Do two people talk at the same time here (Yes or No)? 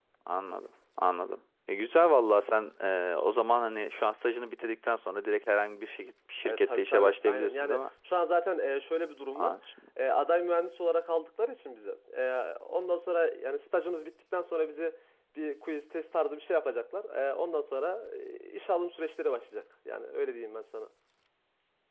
Yes